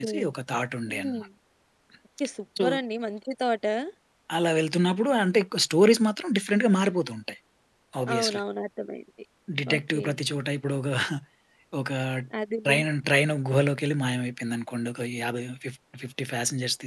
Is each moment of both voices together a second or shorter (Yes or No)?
Yes